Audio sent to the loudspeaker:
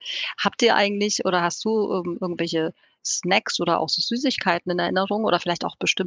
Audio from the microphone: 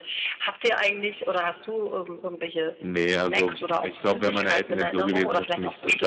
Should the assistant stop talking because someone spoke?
Yes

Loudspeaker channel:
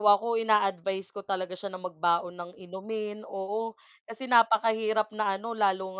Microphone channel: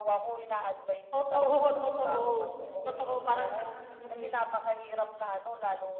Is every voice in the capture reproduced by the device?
No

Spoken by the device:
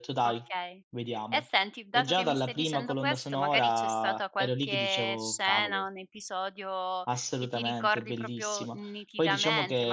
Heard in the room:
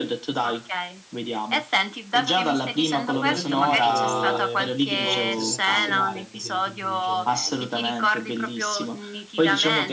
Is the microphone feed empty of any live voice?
No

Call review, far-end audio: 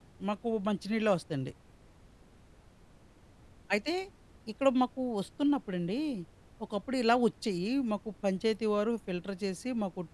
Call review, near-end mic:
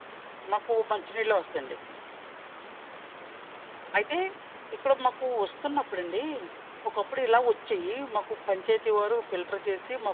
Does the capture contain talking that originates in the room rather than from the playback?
No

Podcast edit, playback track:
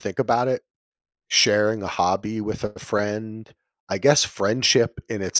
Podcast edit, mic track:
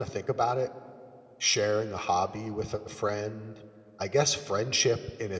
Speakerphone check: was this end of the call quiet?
Yes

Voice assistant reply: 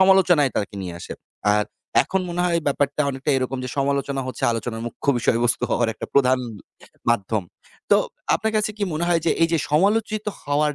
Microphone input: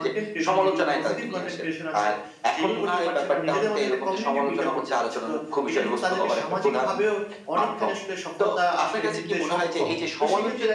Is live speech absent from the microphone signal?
No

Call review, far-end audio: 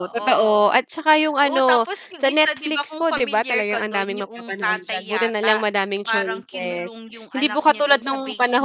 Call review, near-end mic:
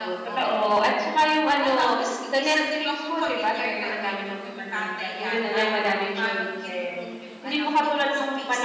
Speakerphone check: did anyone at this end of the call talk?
No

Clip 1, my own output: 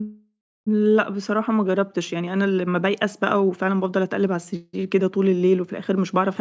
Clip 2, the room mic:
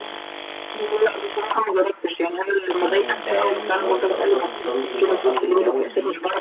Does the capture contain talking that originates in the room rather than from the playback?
Yes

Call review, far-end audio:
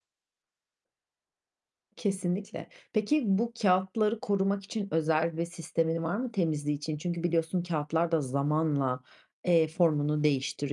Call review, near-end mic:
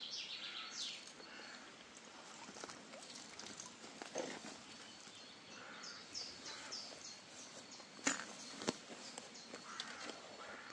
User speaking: No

